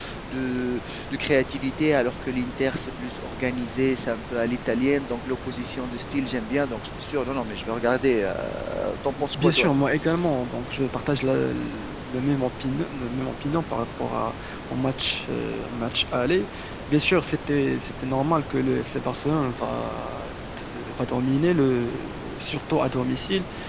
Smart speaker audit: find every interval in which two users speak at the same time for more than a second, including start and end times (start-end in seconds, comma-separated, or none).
none